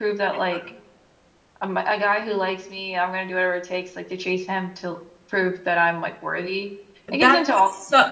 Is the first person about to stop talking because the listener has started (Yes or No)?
Yes